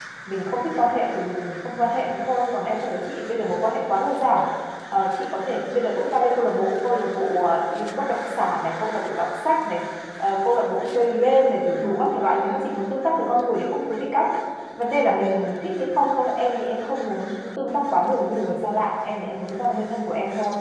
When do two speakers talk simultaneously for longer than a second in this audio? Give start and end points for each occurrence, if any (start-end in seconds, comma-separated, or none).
none